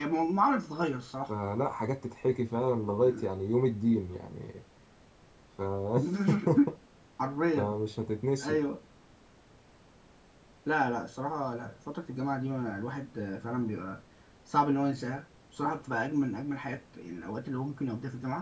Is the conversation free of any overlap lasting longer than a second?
Yes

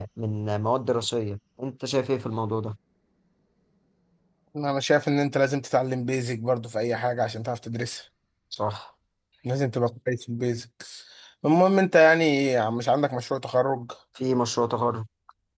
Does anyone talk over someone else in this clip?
No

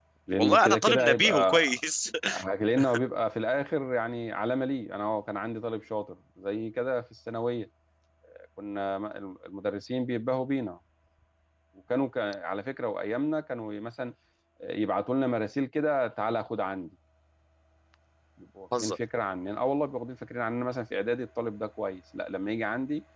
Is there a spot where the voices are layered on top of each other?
Yes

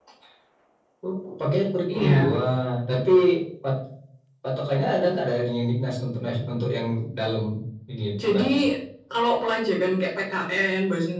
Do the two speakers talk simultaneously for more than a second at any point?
No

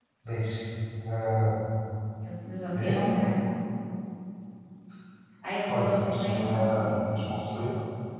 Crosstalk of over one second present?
Yes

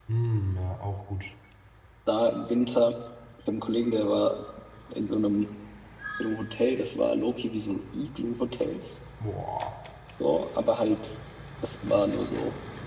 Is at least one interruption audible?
No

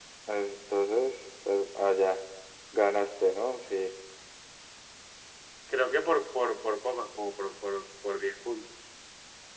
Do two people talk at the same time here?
No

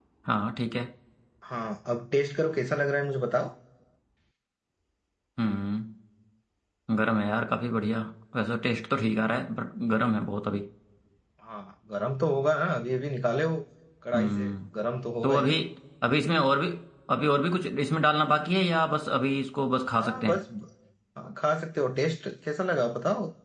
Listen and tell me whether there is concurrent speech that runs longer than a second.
No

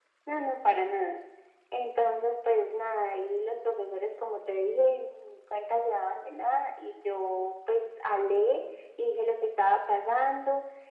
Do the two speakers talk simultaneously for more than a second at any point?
No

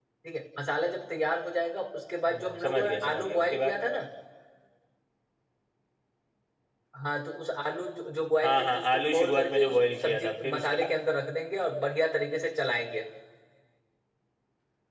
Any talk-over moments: Yes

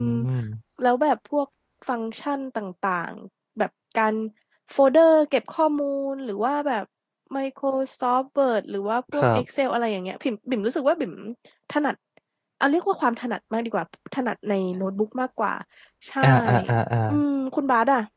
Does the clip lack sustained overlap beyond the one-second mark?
Yes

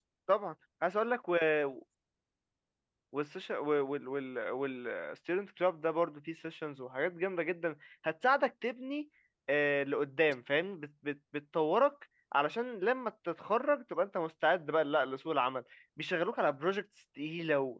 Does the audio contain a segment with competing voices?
No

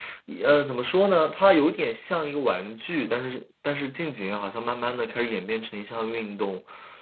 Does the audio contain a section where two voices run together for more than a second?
No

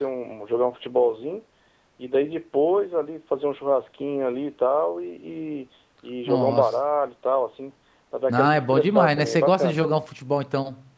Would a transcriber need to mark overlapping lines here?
Yes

